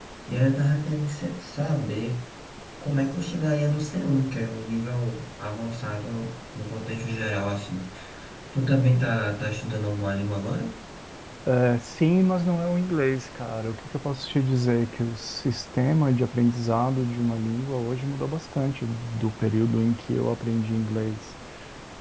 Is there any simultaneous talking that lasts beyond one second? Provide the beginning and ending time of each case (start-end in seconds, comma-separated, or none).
none